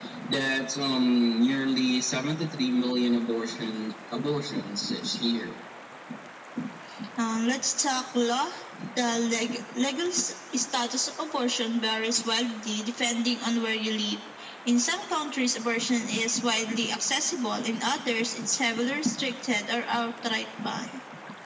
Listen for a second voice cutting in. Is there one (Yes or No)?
No